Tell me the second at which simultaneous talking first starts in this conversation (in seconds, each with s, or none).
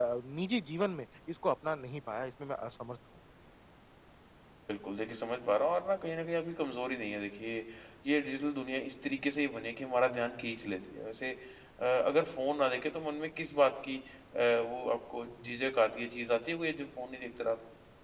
none